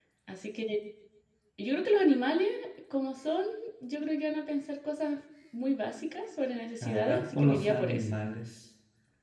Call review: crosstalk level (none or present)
present